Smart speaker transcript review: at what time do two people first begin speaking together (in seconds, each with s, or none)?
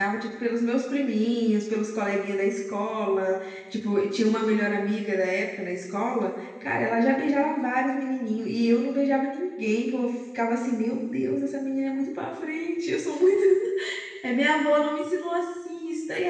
none